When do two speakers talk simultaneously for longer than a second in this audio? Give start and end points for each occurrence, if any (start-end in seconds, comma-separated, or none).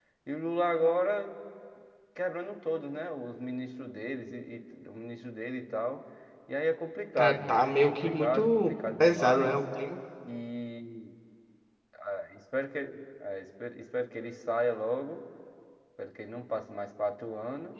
7.2-9.6